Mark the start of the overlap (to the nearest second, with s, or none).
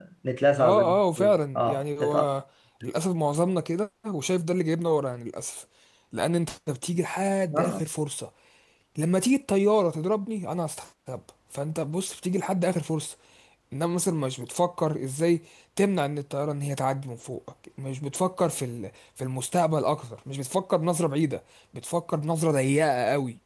1 s